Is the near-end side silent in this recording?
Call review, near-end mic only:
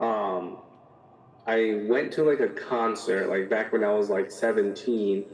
Yes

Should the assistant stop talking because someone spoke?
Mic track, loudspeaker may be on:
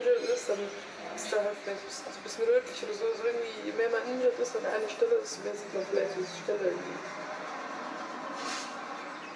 No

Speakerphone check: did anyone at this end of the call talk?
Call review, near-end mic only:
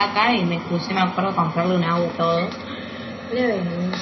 No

